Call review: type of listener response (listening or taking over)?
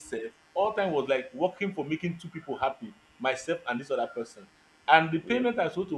listening